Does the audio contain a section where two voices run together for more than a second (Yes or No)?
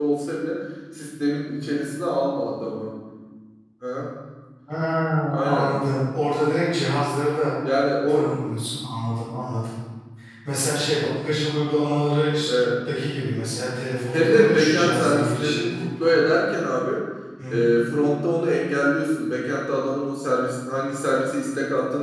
Yes